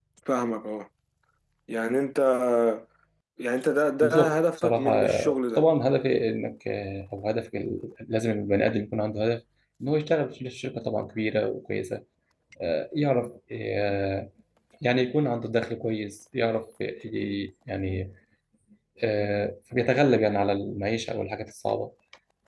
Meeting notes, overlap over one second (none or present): present